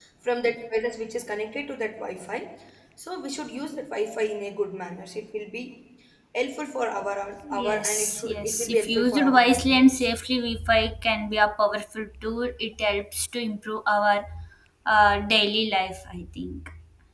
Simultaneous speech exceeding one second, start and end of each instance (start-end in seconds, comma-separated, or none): 7.5-10.1